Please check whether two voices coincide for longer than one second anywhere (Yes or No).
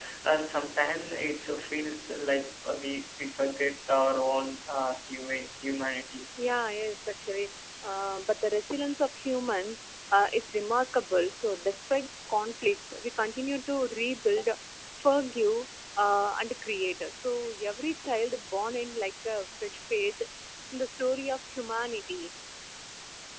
No